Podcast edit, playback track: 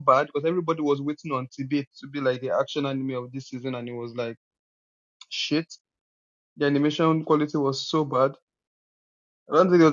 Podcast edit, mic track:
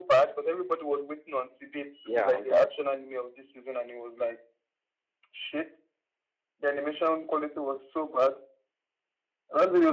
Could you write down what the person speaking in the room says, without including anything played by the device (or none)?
Yeah, I'm done with it.